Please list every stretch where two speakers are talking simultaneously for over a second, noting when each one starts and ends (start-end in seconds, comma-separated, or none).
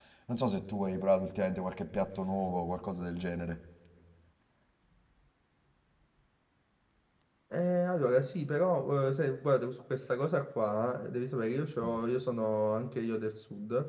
none